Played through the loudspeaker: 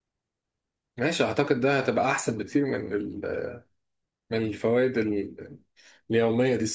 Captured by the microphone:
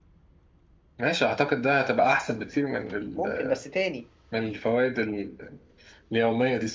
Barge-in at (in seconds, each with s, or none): 3.1 s